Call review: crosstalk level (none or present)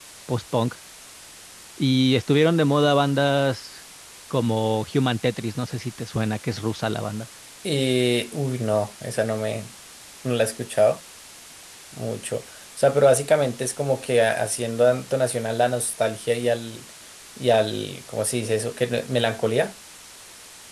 none